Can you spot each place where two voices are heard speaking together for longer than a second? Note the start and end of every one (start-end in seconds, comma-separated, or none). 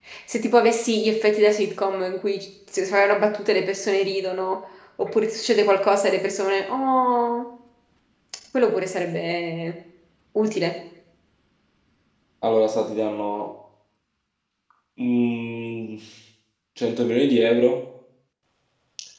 none